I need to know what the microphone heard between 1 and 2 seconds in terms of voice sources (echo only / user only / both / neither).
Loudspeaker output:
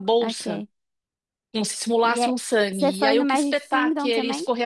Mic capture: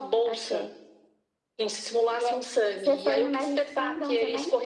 echo only